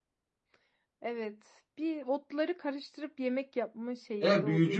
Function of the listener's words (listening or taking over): taking over